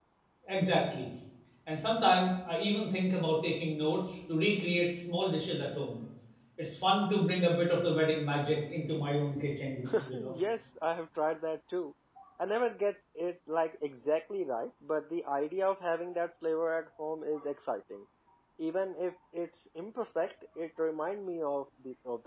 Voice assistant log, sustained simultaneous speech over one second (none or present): none